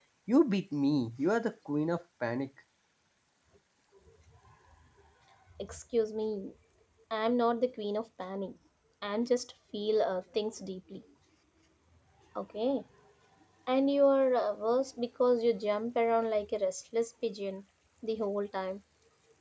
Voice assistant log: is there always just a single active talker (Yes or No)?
Yes